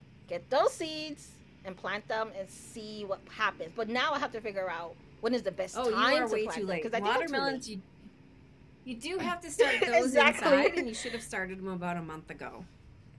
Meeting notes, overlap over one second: present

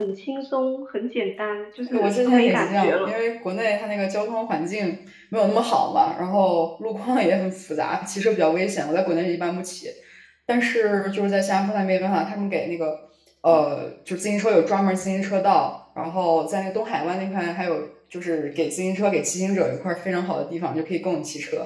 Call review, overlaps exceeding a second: present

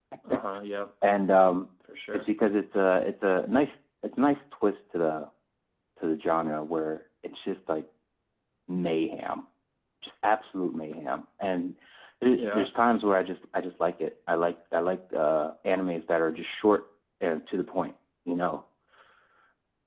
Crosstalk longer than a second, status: none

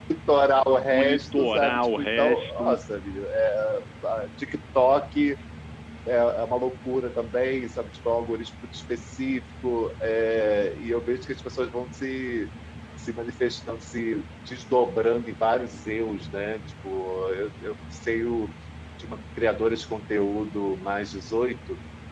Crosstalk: present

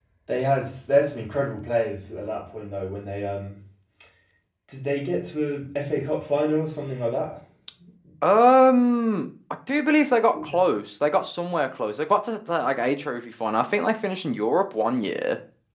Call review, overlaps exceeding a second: none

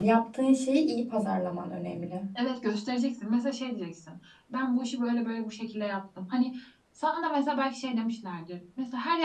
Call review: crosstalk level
none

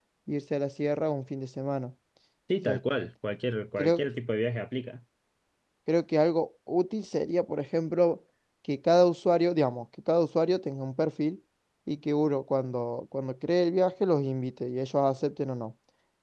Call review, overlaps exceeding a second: none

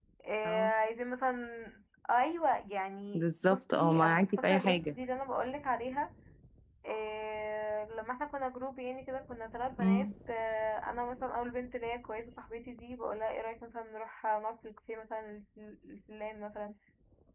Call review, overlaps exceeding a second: present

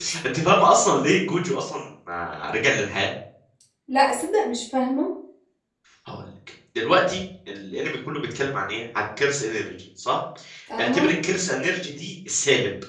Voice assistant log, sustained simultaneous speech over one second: none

